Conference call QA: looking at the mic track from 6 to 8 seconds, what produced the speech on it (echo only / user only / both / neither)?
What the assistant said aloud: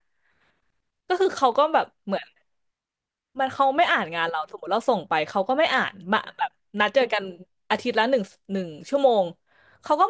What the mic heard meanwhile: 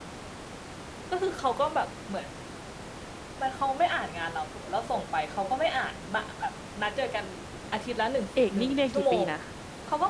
echo only